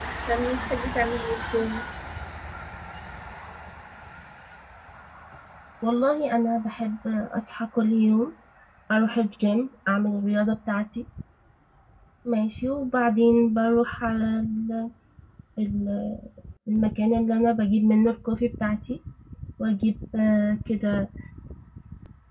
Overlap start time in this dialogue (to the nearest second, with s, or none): none